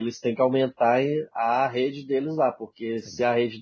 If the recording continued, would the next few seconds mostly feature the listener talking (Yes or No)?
No